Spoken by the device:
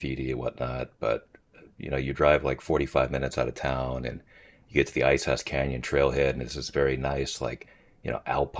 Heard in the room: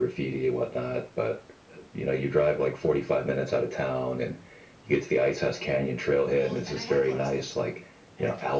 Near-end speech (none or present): present